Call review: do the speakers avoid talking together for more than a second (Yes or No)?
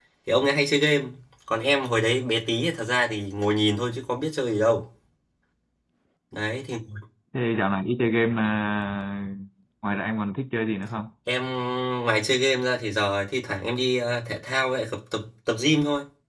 Yes